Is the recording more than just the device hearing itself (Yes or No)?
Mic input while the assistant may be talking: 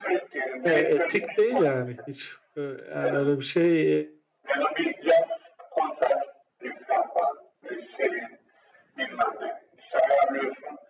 Yes